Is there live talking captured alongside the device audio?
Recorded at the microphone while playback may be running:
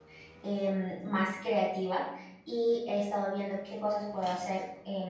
Yes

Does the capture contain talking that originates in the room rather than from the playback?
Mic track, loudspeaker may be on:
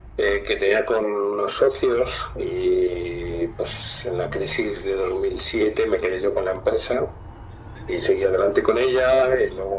No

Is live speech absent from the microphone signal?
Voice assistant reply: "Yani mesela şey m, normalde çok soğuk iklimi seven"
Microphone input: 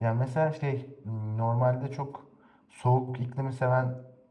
Yes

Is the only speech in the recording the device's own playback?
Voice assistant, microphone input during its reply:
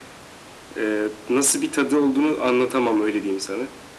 Yes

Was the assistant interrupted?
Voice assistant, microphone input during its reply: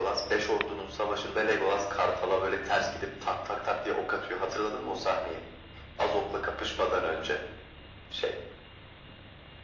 No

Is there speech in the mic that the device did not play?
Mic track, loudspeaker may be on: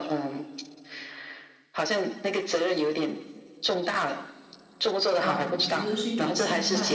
Yes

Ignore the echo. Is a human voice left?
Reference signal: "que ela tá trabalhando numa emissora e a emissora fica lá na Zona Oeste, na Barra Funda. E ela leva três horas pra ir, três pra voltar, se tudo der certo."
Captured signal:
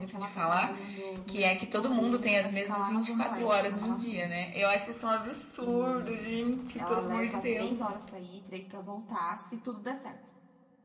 Yes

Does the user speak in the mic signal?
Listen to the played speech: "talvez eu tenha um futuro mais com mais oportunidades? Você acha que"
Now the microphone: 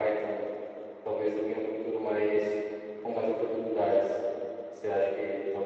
No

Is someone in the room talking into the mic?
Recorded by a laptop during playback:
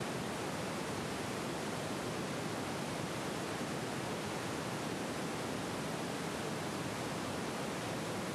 No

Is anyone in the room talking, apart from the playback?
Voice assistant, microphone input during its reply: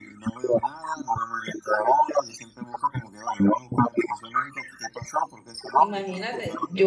Yes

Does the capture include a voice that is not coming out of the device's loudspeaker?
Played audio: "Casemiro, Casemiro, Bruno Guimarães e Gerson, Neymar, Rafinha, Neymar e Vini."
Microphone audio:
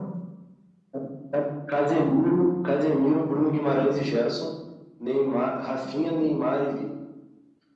No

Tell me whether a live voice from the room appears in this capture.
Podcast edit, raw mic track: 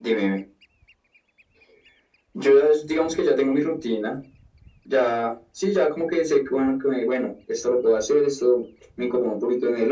No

